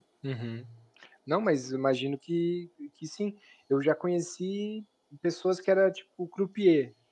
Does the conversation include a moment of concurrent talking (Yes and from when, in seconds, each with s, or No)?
No